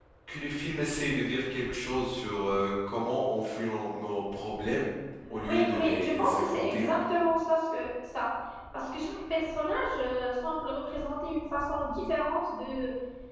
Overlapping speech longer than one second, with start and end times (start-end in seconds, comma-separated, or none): 5.5-6.9